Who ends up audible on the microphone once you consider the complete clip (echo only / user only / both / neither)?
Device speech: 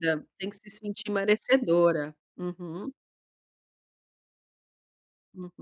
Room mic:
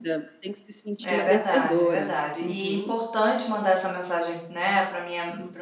both